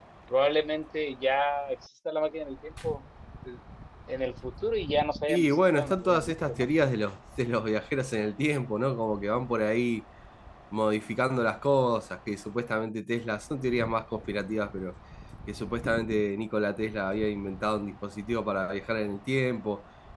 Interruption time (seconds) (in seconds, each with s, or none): 5.3 s